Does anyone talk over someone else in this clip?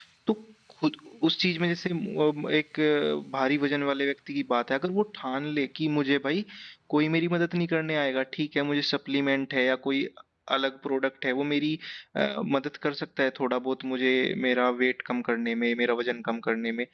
No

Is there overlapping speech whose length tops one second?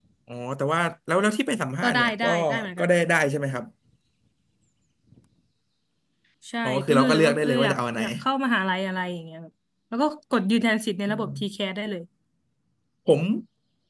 Yes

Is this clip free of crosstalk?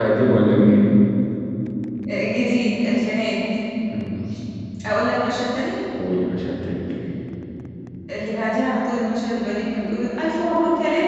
Yes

